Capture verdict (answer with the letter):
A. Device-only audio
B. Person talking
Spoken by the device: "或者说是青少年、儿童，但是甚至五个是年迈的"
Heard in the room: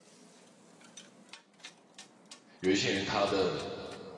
B